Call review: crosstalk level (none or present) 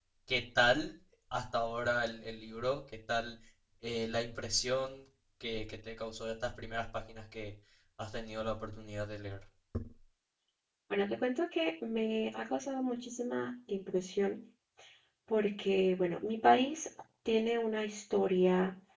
none